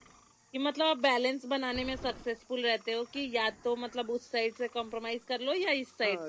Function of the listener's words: taking over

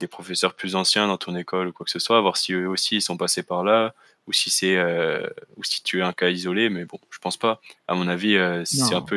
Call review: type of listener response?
listening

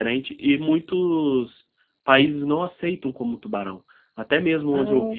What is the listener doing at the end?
listening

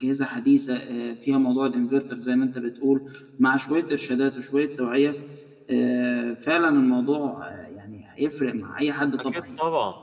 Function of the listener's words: taking over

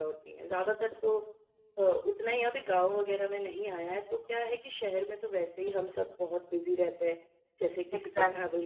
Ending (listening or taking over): taking over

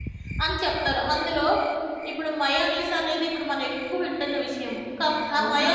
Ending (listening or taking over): taking over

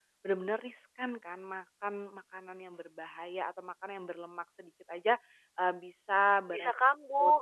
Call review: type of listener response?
listening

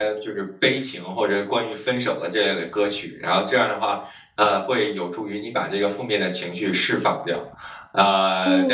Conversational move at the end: taking over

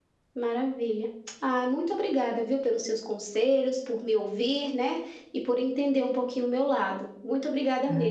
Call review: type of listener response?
taking over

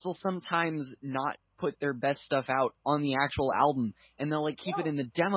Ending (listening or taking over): listening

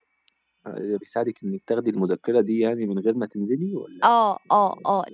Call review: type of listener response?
taking over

